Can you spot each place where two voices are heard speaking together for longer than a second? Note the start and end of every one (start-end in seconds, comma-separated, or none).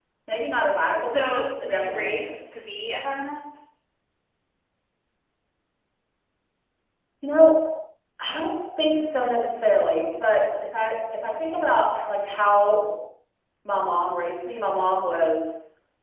1.0-2.6